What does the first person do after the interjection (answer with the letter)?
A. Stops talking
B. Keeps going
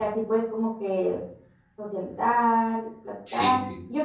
B